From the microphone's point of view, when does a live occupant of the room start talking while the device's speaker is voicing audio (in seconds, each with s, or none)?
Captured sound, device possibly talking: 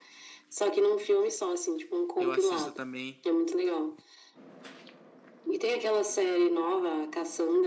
2.2 s